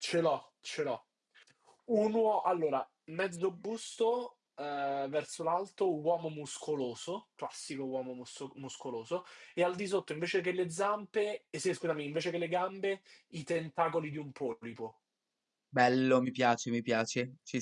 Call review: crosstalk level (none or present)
none